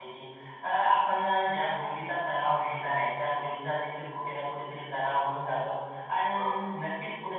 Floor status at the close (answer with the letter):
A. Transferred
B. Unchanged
B